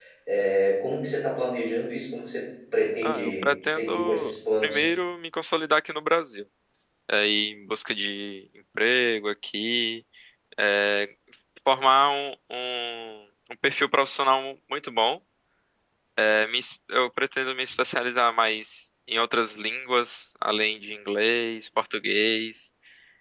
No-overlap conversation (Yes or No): No